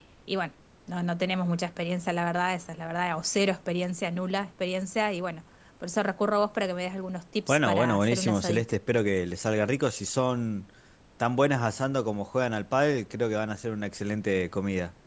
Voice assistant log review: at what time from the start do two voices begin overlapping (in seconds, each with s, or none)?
7.5 s